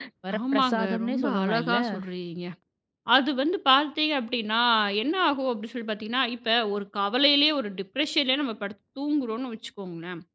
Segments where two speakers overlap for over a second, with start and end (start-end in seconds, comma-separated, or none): 0.5-1.8